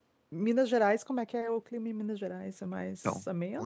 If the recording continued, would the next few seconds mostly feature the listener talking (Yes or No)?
Yes